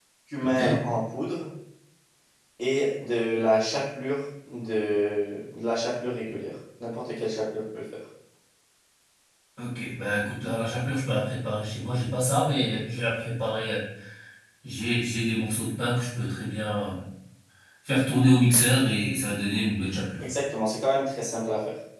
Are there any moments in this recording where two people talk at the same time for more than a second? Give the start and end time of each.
none

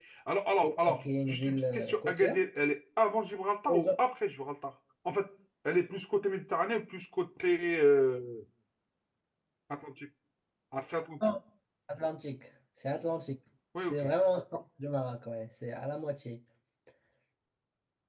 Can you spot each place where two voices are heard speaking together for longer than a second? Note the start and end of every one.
0.6-2.4

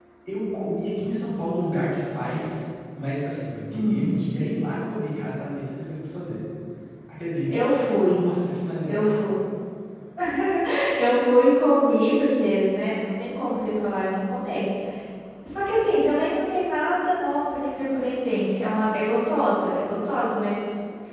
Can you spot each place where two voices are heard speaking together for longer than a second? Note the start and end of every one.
none

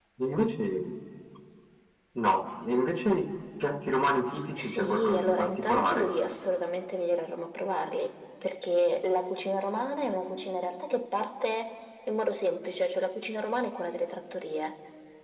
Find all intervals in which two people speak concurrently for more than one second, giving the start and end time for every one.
4.6-6.1

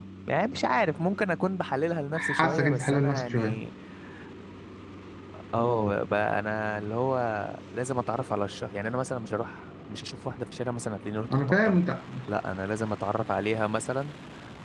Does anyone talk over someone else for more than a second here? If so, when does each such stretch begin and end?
2.1-3.6

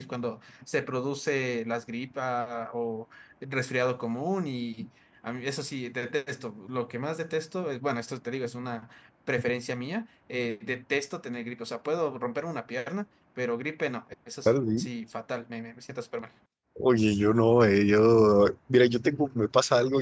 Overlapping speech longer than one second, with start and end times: none

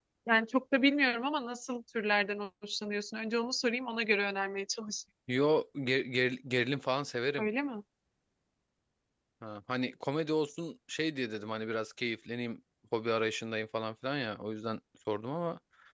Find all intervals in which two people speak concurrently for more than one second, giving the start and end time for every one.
none

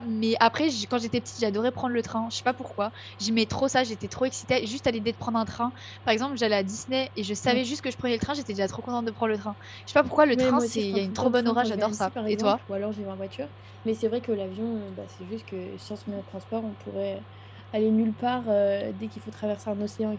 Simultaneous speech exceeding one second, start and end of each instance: 10.3-12.6

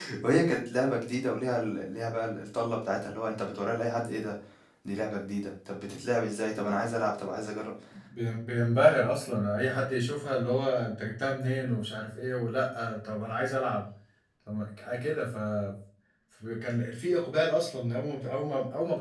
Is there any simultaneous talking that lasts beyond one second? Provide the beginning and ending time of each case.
none

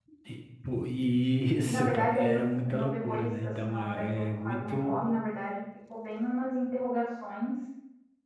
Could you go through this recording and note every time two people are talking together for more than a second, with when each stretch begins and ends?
1.7-5.0

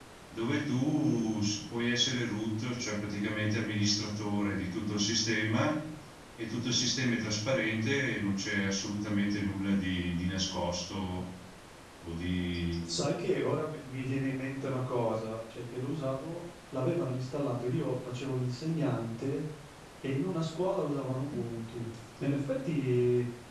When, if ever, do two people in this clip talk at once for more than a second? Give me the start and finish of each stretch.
none

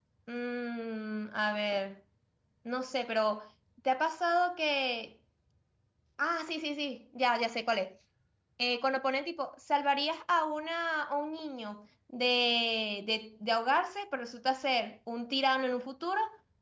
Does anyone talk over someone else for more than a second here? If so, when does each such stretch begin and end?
none

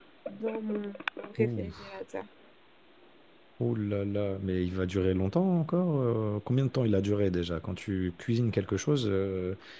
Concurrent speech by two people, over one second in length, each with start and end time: none

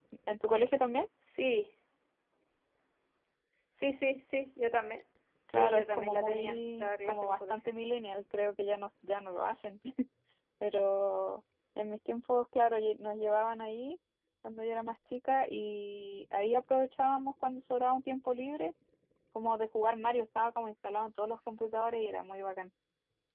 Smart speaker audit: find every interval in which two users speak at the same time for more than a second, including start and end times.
5.5-7.7

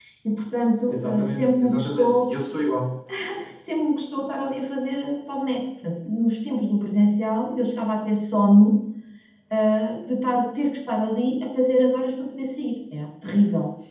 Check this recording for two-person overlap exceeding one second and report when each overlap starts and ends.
0.9-2.3

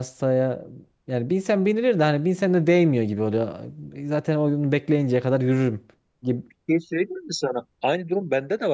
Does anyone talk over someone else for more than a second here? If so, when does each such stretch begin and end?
none

